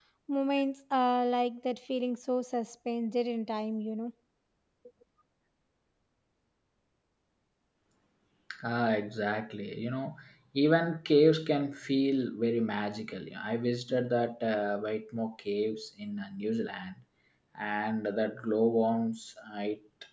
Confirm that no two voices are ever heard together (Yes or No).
Yes